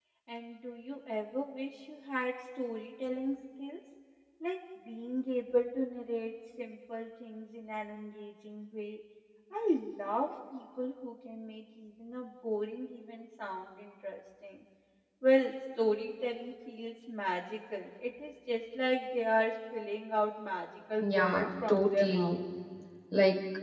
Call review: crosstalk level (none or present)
present